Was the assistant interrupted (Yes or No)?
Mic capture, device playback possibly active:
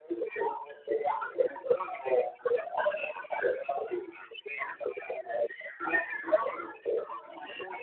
No